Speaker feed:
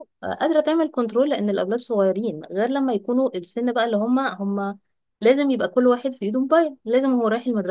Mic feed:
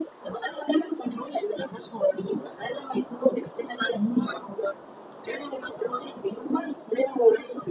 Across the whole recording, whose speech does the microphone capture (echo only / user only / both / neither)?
echo only